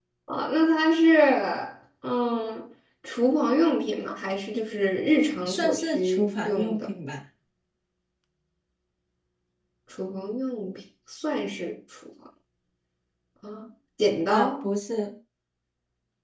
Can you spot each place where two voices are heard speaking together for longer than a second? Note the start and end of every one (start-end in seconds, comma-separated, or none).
5.4-6.9